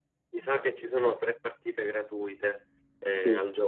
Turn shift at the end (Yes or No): Yes